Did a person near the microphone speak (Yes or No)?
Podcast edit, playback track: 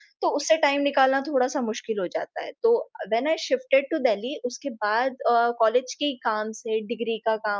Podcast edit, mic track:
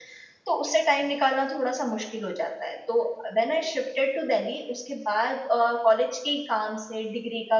No